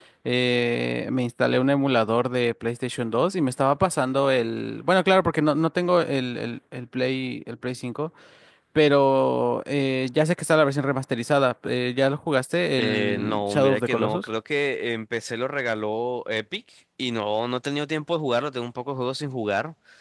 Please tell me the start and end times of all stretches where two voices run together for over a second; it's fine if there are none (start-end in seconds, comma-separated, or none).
12.8-14.2